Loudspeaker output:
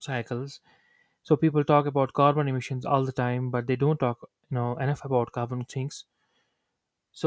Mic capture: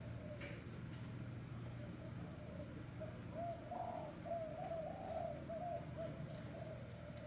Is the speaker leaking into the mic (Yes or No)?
No